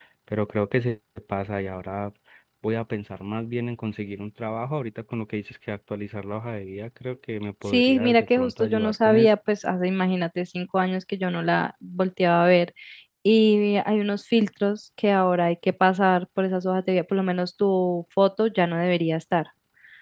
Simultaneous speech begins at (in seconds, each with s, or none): 7.7 s